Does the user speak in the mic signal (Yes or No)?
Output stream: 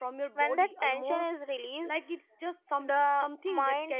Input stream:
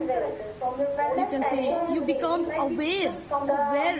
Yes